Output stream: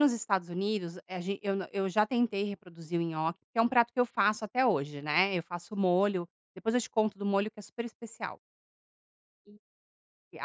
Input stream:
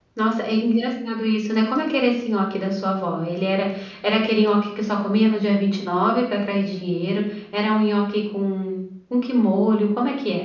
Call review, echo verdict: none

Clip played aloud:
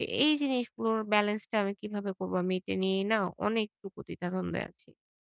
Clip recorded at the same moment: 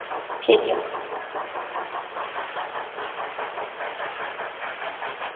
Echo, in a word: none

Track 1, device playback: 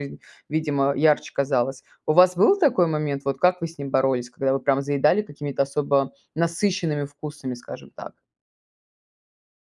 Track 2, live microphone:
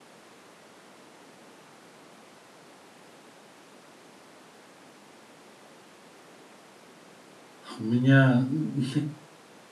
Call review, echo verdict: none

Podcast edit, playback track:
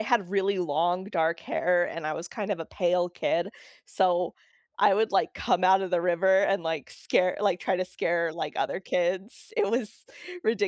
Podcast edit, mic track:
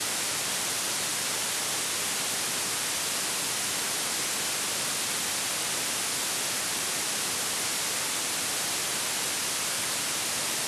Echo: none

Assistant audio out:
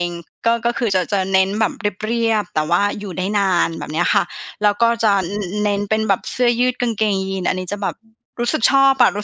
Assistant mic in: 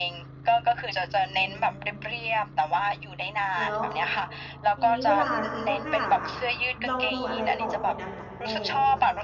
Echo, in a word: present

